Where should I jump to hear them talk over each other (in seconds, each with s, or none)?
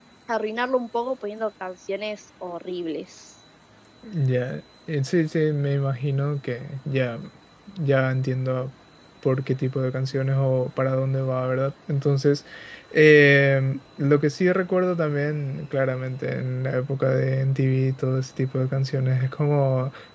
none